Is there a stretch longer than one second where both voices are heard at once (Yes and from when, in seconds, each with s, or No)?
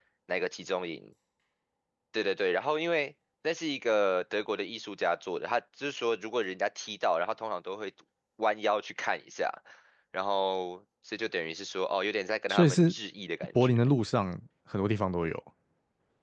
No